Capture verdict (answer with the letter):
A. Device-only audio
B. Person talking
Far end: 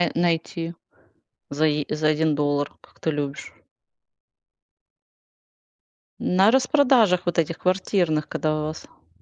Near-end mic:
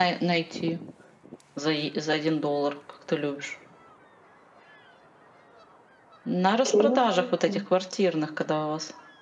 B